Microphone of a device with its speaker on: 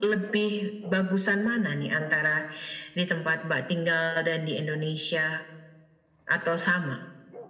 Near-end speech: none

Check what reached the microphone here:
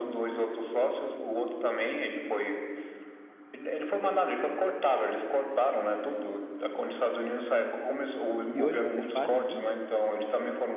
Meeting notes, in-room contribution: present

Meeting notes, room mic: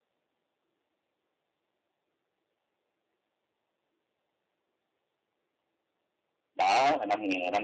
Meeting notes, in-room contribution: present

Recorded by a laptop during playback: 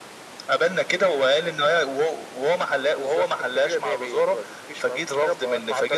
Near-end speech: none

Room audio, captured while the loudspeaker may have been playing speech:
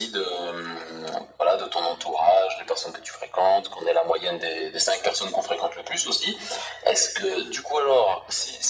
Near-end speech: none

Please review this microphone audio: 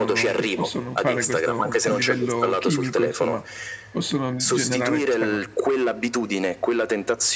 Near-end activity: present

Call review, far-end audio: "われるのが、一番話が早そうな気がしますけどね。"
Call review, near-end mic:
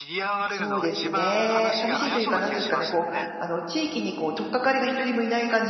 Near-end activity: present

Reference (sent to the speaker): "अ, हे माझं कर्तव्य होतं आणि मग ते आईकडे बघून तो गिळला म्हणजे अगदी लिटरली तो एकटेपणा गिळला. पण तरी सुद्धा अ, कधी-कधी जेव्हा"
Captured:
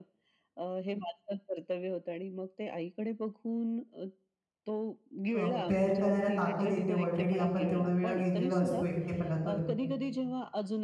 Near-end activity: present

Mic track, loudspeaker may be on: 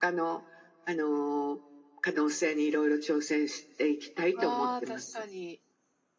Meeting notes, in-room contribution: present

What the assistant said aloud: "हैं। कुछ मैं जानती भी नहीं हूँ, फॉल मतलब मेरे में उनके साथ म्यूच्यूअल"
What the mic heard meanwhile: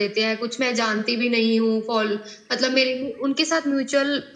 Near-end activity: none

